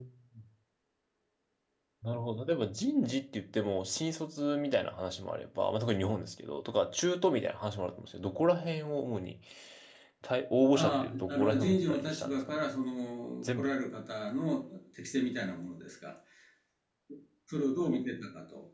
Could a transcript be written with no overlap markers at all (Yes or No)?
No